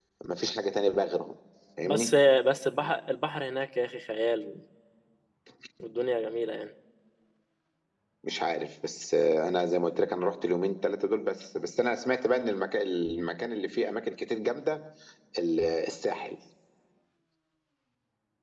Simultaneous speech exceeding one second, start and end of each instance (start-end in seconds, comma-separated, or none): none